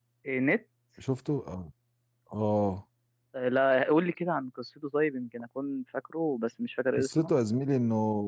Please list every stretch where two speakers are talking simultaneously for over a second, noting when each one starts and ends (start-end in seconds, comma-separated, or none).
none